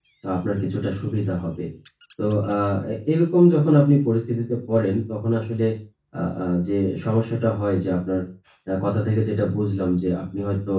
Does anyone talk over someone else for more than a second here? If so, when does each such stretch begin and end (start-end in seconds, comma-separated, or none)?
none